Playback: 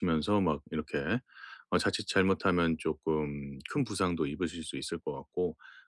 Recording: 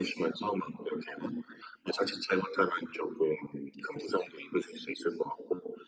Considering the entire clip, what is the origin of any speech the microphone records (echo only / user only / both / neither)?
echo only